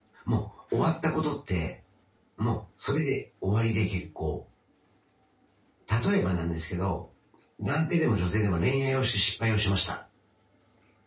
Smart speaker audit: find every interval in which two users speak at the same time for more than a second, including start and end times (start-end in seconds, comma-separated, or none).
none